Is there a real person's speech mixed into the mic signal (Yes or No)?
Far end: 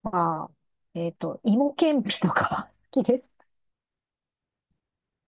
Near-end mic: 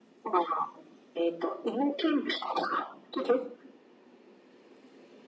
No